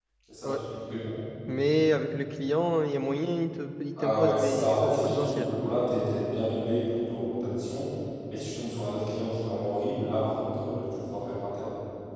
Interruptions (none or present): present